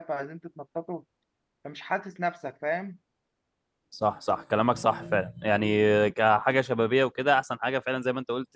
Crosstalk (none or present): none